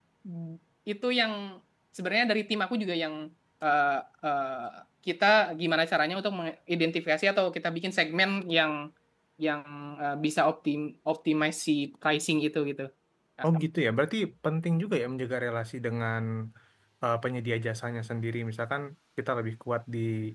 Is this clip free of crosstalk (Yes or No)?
Yes